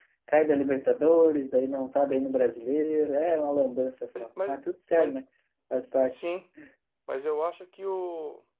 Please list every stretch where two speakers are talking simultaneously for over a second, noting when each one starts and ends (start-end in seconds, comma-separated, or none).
none